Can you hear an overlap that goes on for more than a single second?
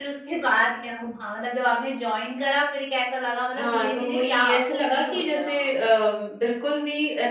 Yes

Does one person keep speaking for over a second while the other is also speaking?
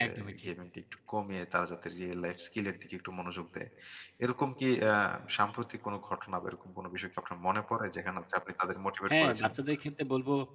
No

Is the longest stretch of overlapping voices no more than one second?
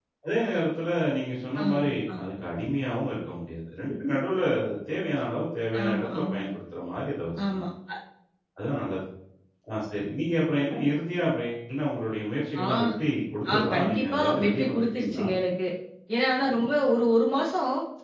No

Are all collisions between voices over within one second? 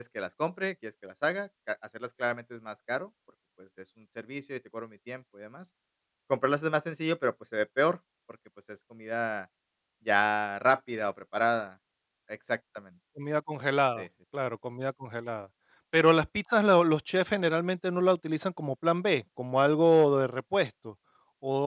Yes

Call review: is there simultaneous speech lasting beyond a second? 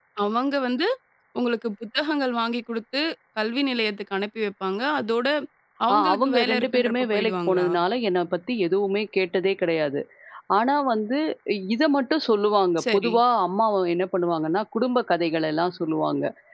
Yes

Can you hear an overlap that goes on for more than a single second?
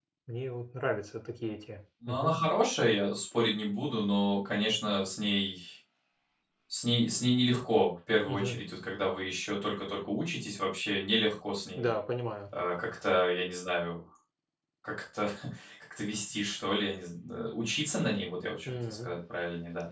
No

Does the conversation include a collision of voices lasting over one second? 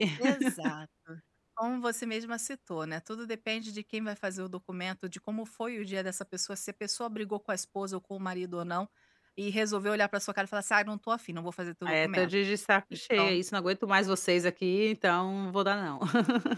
No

